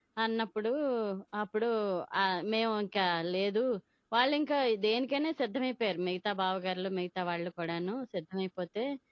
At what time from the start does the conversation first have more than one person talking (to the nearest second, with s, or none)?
none